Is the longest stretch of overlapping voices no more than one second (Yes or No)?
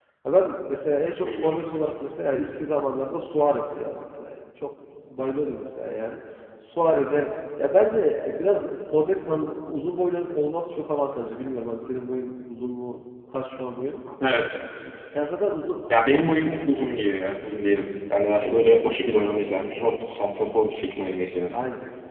Yes